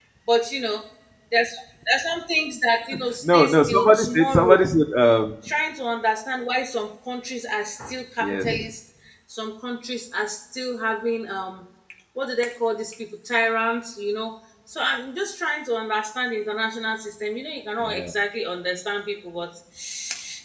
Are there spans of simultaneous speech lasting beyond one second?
Yes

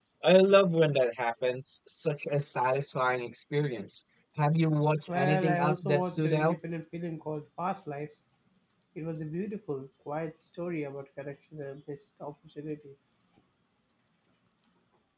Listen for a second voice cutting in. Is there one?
Yes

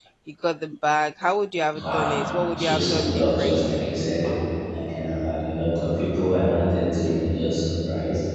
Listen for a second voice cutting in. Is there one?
Yes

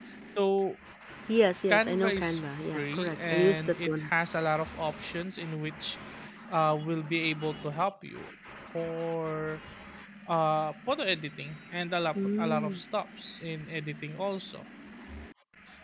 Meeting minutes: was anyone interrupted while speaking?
Yes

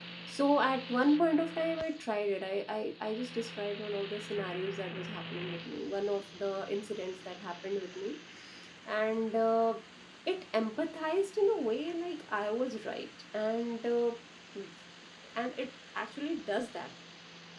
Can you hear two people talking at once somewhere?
No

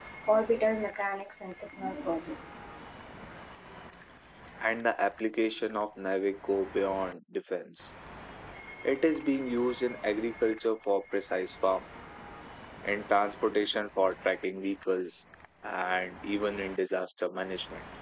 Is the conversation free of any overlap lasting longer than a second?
Yes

